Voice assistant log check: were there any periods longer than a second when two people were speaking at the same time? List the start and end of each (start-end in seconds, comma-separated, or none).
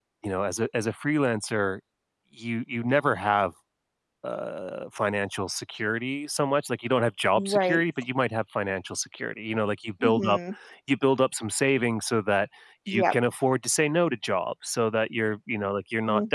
none